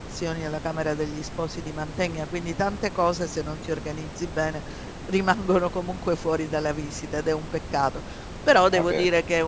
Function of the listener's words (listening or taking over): listening